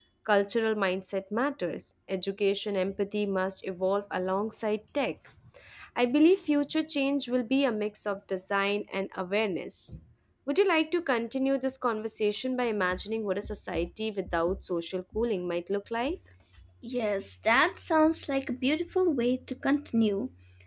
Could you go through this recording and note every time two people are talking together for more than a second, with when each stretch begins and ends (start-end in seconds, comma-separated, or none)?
none